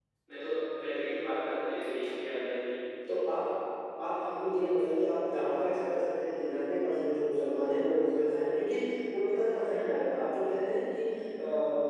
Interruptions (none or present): none